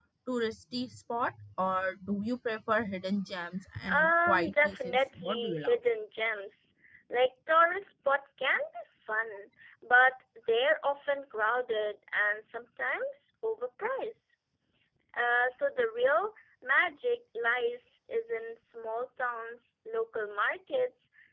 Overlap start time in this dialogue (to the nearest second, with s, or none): 4 s